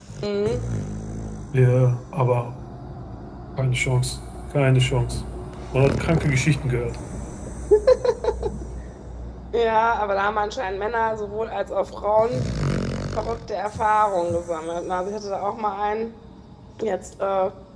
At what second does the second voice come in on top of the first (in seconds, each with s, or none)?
none